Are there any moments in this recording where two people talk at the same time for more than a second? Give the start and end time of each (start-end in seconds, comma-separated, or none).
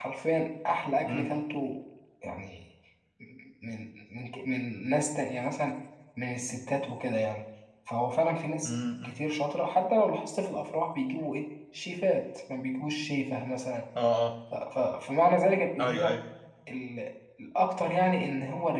none